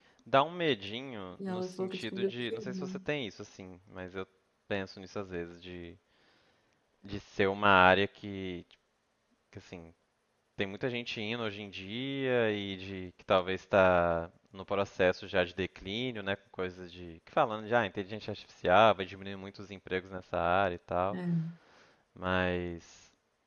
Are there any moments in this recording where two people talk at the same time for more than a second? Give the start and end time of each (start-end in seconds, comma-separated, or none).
1.5-2.7